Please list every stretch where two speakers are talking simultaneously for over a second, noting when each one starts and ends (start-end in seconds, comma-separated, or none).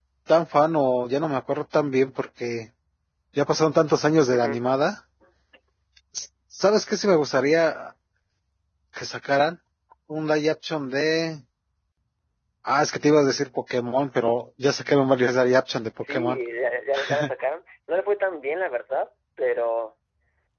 none